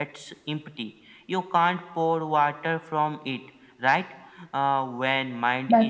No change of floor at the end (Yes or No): Yes